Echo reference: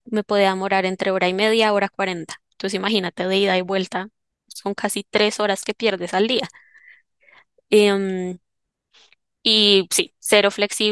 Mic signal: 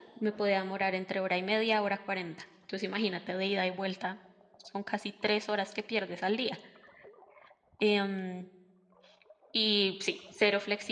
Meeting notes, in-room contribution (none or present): none